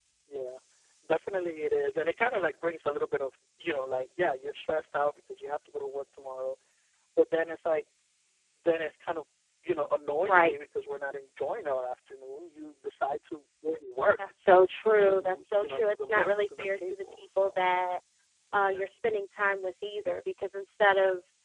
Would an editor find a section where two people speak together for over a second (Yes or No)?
Yes